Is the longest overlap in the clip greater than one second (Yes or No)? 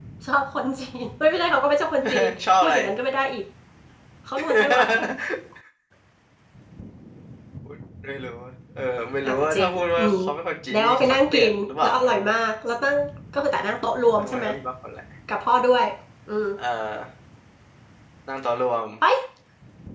Yes